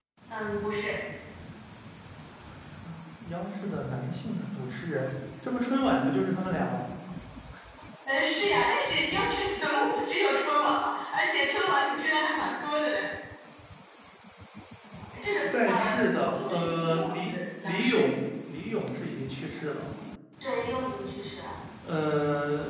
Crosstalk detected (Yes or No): Yes